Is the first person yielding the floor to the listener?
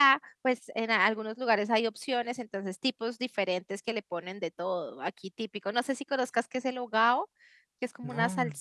No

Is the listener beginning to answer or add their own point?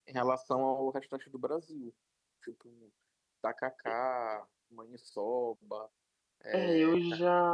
Yes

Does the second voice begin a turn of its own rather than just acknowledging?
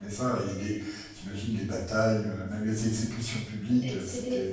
Yes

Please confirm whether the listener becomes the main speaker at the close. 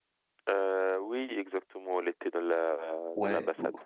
Yes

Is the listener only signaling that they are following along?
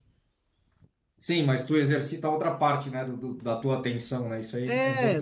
No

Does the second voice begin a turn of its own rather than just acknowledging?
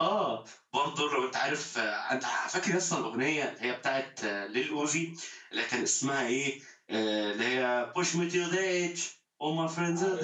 No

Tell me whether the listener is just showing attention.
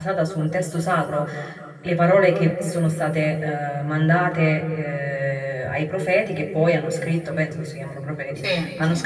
Yes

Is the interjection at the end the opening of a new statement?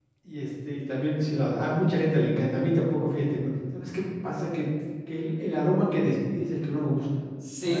Yes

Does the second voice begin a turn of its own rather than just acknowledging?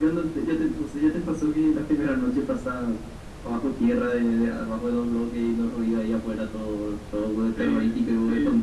Yes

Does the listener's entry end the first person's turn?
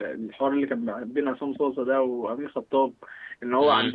No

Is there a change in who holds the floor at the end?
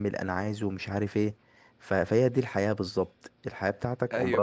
Yes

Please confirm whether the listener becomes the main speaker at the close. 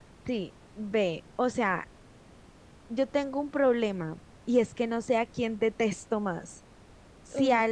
No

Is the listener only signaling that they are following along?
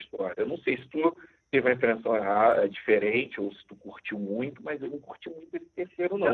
No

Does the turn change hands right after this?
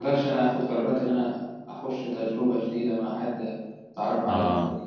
No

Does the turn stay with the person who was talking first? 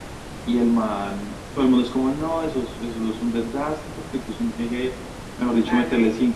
Yes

